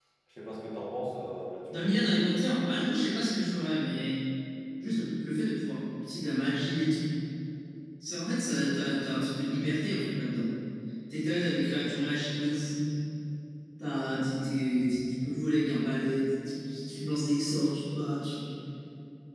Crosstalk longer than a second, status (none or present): none